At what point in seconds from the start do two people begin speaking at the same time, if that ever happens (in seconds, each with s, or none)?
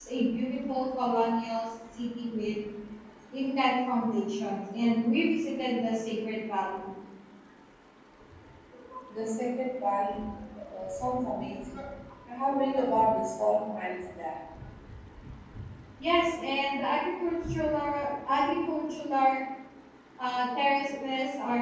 none